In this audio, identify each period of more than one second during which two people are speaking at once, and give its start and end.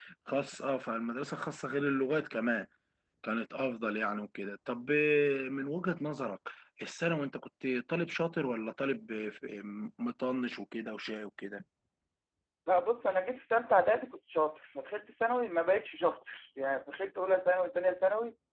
none

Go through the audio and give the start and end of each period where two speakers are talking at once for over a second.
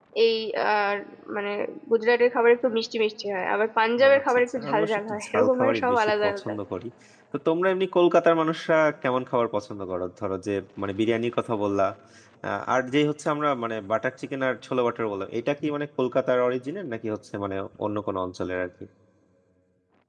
4.1-6.5

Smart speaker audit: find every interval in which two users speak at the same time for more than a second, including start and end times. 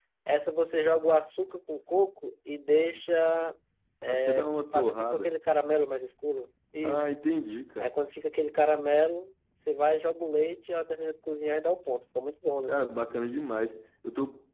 4.0-5.3

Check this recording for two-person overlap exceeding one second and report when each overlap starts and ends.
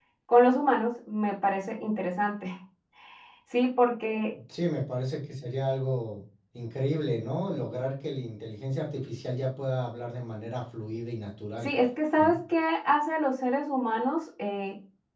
none

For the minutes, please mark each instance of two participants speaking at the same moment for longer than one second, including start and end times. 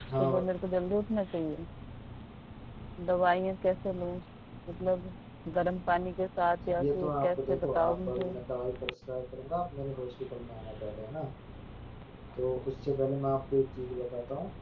6.8-8.3

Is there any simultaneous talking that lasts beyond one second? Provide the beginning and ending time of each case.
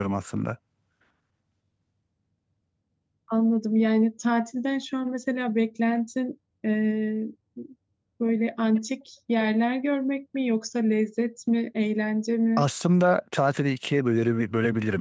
none

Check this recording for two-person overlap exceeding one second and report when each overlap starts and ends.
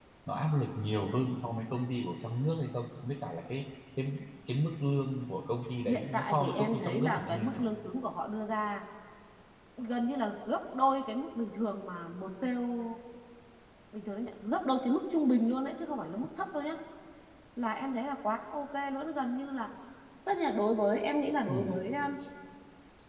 5.9-7.6

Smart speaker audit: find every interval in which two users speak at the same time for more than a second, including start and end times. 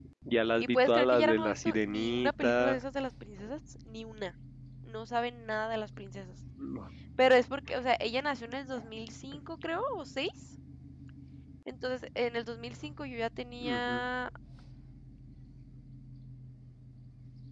0.6-2.8

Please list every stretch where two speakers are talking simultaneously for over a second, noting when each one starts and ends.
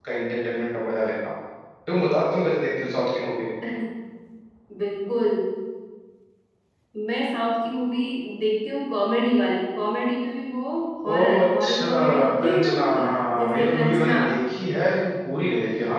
11.1-14.2

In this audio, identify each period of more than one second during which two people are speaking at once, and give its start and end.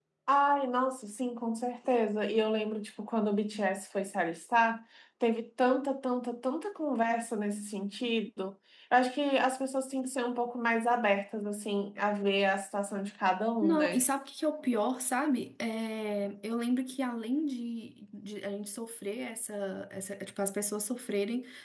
none

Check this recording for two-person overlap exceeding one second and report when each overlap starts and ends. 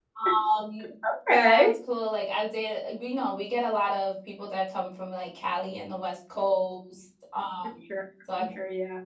none

